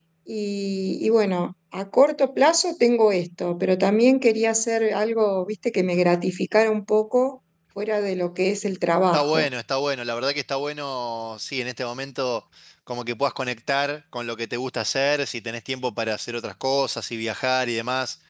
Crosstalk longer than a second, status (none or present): none